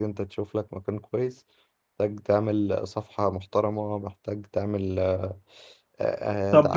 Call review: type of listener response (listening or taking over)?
taking over